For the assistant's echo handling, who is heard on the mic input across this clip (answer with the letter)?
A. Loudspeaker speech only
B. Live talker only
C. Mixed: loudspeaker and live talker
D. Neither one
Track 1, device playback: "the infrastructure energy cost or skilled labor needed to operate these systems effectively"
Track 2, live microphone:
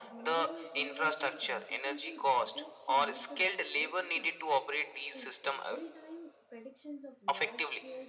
C